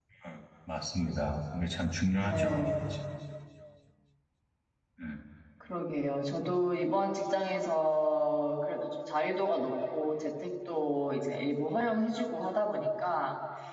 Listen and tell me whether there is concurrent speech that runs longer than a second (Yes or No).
No